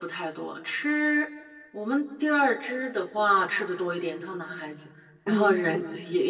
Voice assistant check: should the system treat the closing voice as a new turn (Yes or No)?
No